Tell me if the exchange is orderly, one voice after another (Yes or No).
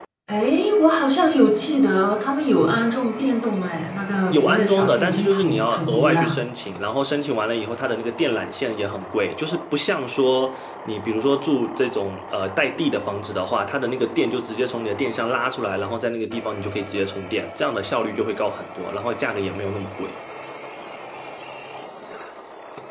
No